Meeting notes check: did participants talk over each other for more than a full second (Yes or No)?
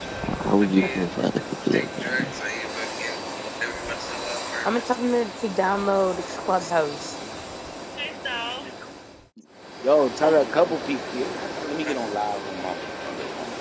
No